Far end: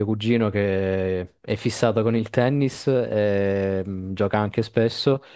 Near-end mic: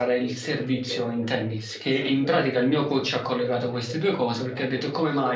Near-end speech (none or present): present